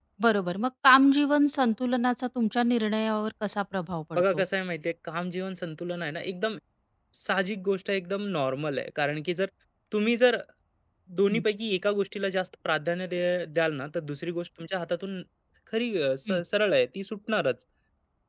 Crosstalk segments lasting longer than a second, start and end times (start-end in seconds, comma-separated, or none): none